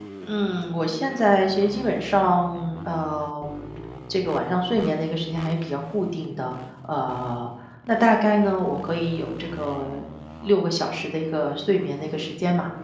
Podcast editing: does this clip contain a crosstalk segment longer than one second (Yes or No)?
No